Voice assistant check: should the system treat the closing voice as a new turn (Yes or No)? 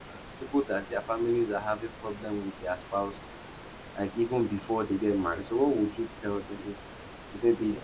No